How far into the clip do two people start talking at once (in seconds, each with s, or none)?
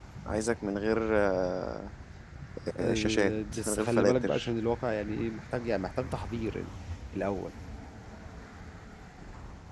2.9 s